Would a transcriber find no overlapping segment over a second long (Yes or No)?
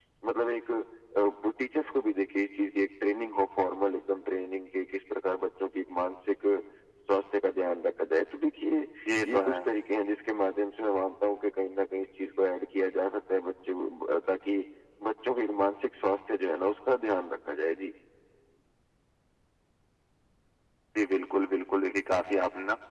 Yes